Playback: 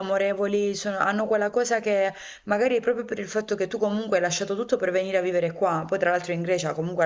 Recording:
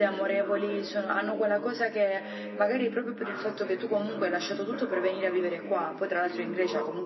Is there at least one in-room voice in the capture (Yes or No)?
Yes